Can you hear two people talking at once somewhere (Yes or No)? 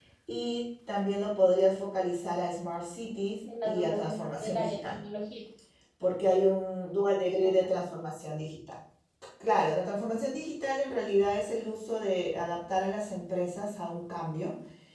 Yes